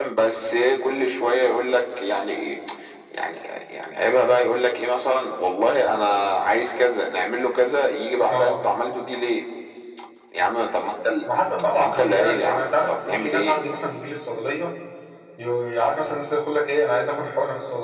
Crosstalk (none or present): present